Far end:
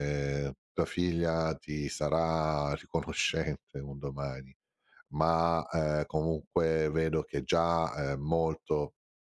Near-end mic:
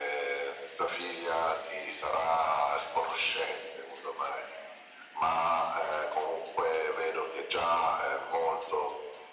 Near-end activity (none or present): none